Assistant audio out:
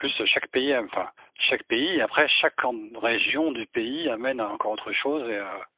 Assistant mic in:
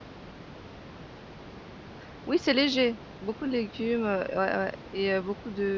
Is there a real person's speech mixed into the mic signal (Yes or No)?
Yes